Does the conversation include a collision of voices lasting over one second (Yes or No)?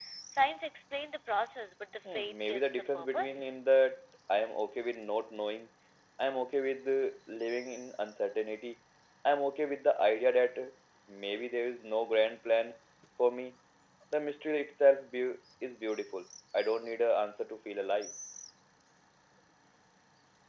Yes